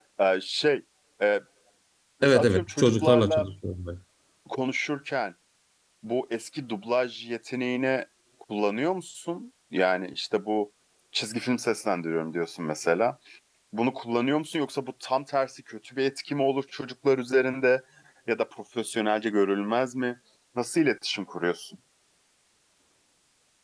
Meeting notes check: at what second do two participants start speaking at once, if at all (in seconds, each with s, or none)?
2.2 s